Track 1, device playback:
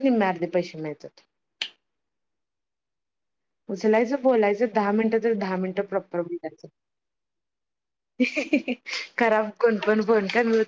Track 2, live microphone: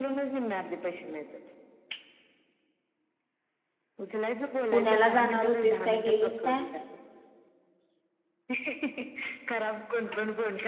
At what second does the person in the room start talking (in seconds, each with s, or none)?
4.7 s